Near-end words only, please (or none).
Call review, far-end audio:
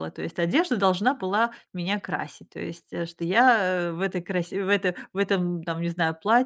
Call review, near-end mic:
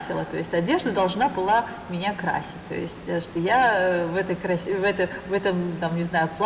none